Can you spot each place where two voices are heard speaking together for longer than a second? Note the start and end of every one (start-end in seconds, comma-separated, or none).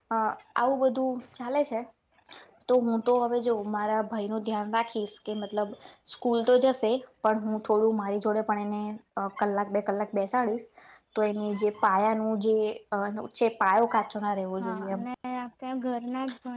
none